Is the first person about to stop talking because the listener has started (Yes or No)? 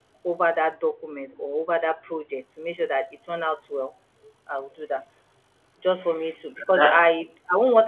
No